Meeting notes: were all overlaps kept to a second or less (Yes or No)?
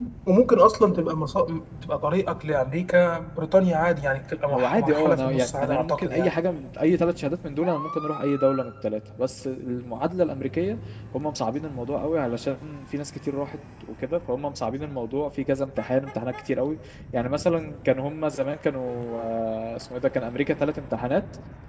No